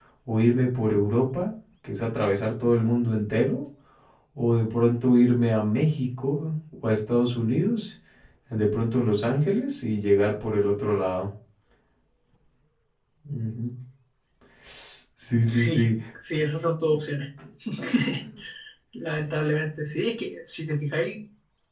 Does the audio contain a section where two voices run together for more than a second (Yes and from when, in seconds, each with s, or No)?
No